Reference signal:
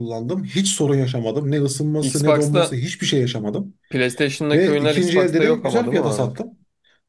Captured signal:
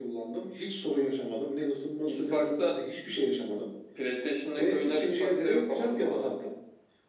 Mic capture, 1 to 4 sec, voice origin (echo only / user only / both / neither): echo only